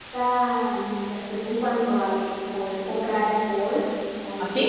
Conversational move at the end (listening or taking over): listening